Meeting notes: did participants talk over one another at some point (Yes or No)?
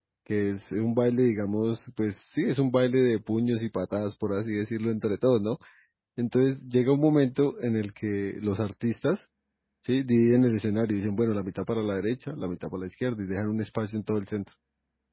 No